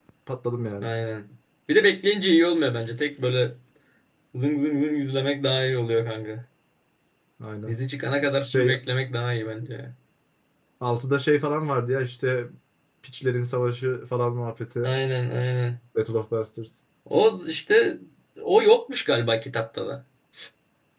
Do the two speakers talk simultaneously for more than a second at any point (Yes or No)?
No